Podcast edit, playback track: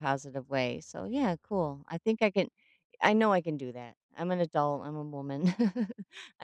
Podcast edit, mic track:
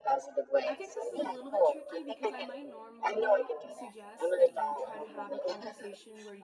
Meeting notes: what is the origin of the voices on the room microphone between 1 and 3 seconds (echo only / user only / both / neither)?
both